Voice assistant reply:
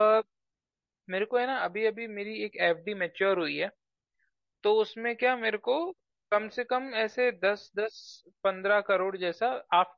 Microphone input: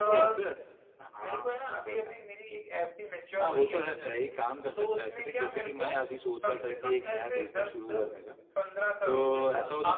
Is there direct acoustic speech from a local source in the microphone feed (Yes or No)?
Yes